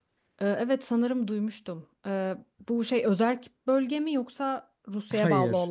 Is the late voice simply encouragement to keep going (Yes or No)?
No